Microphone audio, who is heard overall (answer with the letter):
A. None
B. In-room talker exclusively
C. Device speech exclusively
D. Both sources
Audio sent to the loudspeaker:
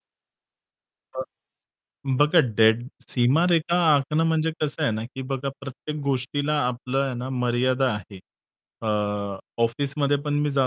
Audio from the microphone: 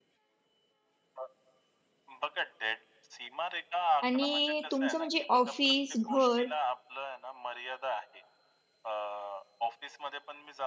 D